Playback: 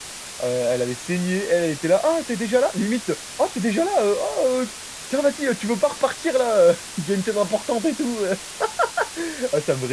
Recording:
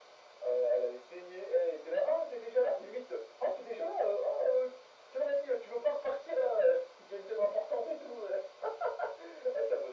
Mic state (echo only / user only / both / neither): echo only